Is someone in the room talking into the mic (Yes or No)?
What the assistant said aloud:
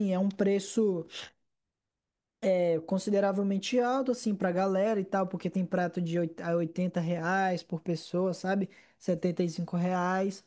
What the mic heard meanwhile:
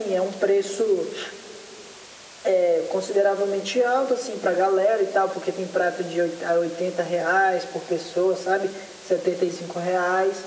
No